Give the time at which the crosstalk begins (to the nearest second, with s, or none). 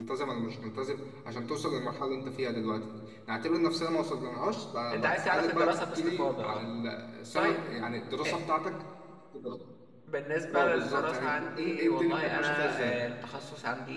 5 s